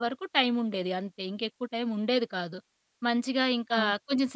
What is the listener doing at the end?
listening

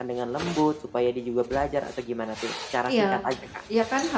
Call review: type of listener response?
taking over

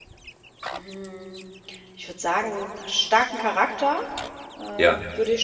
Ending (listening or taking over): listening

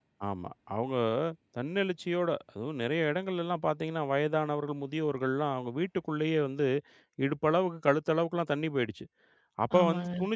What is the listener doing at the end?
listening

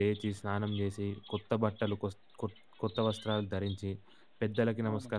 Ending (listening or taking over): listening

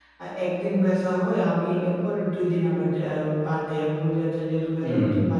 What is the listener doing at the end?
listening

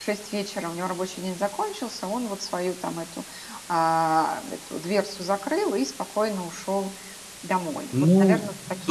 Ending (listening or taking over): taking over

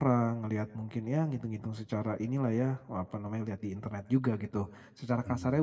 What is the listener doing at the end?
listening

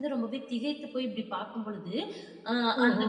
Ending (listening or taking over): listening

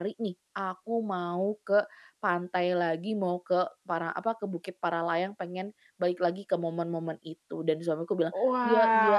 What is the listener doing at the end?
taking over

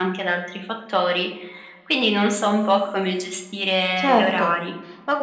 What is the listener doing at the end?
taking over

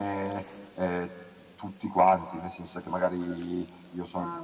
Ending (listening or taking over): listening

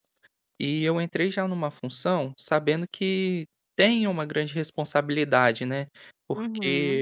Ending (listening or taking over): taking over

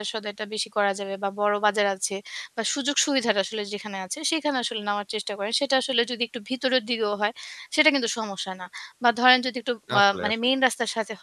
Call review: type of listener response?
listening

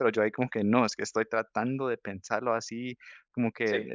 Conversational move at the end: listening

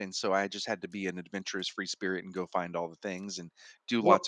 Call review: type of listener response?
listening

